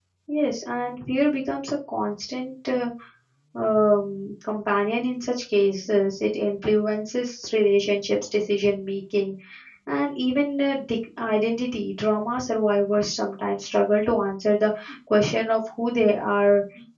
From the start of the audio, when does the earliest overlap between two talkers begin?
none

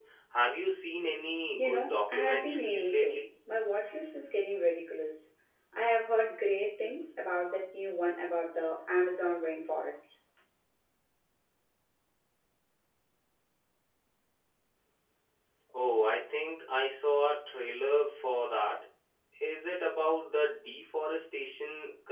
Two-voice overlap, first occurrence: 1.6 s

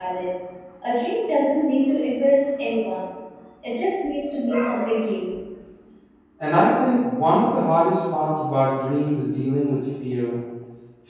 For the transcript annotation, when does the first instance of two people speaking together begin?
none

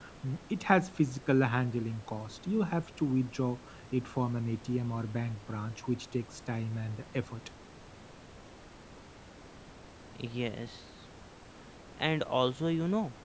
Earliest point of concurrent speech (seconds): none

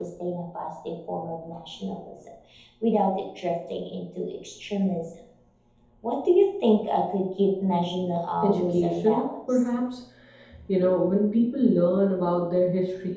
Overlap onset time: 8.4 s

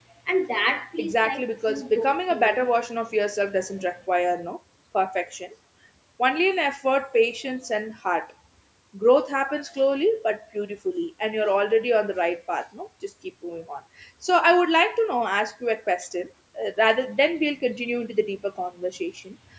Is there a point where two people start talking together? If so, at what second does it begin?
1.0 s

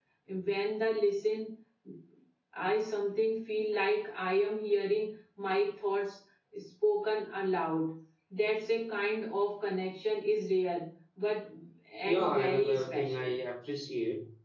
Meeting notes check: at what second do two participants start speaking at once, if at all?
12.1 s

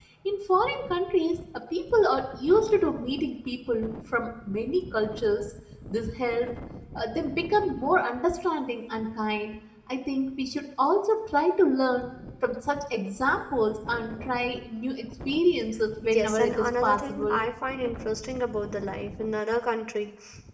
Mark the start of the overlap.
16.0 s

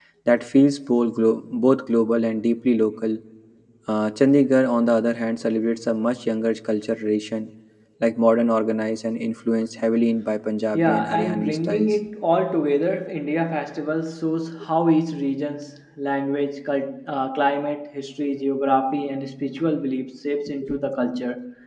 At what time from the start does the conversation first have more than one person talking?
10.7 s

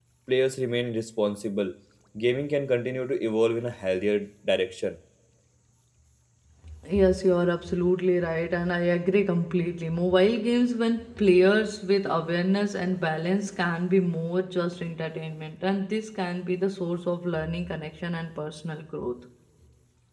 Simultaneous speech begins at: none

